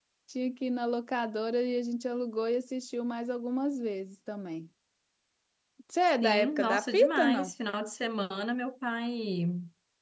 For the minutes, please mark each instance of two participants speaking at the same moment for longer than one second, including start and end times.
6.2-7.5

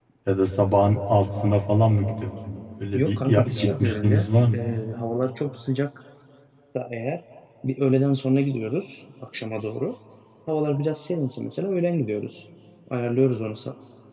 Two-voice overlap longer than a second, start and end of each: 2.9-4.6

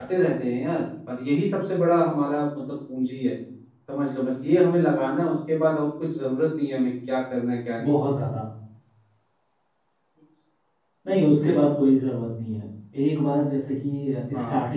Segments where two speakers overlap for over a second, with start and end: none

